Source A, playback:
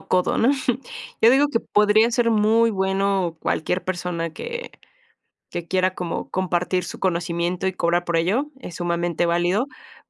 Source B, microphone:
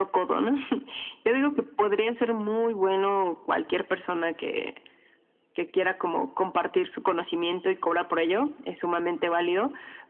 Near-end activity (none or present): none